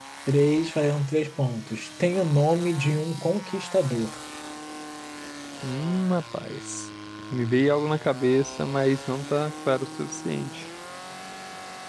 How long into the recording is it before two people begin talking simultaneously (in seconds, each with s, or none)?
none